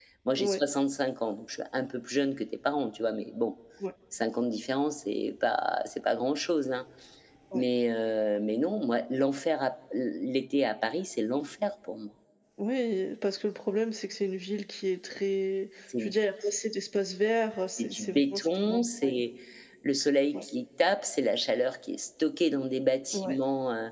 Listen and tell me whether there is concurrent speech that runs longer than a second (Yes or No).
Yes